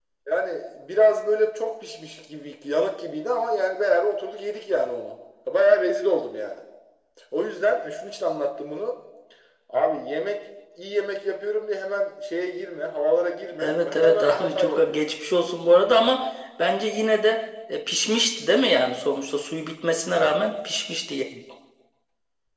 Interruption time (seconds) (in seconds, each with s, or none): 13.6 s